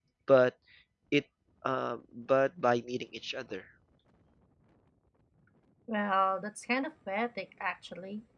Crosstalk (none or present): none